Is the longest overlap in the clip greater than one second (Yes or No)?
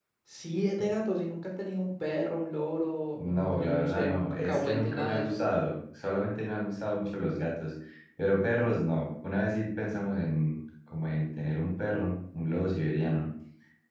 Yes